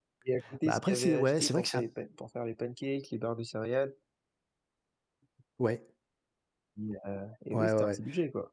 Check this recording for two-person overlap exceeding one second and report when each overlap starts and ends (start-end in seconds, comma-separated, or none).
0.7-1.9